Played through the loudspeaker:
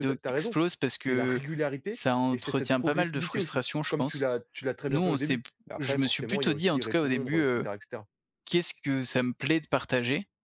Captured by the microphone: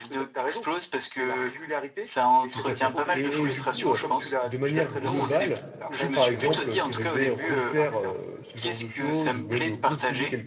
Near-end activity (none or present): present